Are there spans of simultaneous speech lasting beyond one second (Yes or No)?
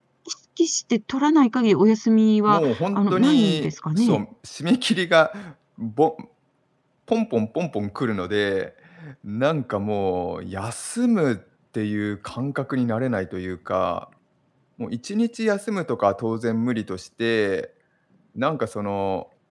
Yes